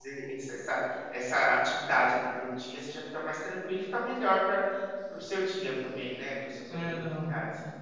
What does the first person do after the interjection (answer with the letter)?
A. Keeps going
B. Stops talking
B